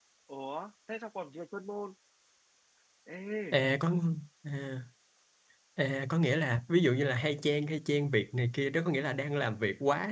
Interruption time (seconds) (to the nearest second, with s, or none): none